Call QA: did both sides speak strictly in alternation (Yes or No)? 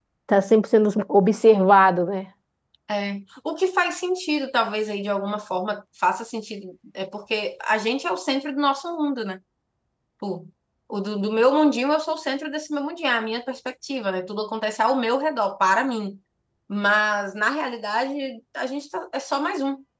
Yes